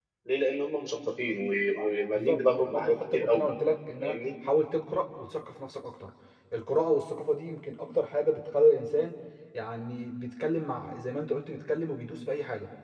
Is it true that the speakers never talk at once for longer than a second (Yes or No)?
No